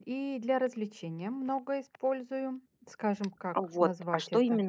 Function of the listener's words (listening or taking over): taking over